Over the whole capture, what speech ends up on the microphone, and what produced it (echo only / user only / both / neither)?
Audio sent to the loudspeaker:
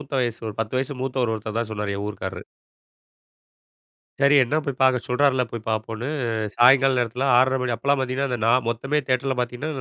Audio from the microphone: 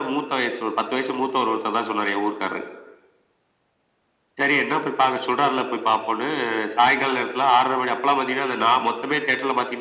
echo only